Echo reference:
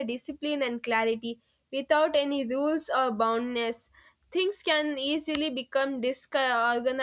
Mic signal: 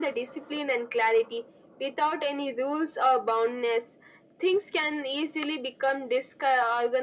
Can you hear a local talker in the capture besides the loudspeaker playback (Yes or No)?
No